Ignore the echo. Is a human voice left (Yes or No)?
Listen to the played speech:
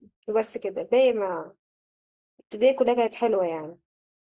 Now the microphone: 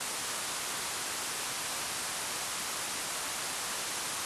No